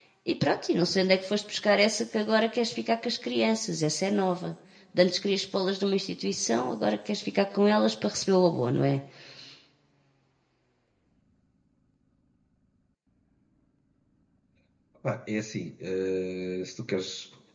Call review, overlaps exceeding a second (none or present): none